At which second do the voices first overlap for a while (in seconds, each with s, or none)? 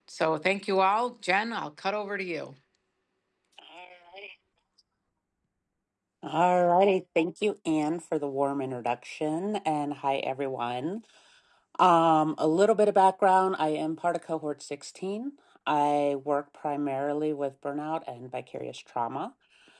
none